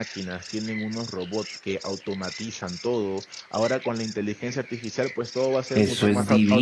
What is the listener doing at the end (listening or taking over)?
taking over